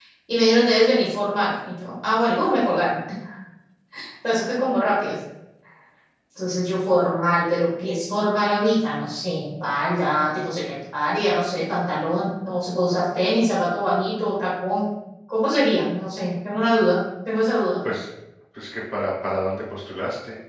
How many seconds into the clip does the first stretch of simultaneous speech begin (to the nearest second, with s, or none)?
none